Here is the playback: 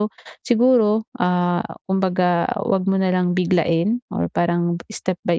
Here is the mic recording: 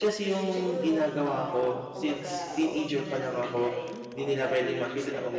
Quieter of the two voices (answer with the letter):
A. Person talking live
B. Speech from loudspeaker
B